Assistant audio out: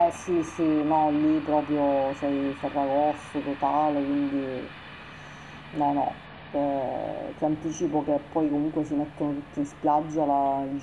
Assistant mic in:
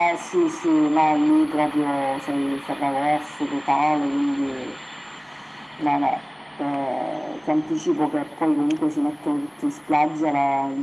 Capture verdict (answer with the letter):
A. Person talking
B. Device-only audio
B